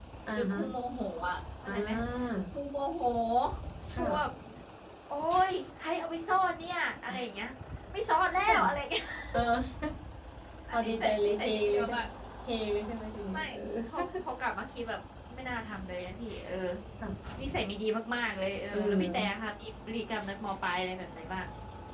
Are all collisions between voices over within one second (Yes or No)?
No